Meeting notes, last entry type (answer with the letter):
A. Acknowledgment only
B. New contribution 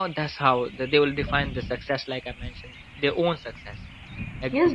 B